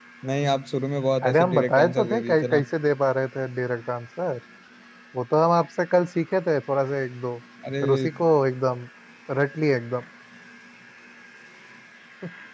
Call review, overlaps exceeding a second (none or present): present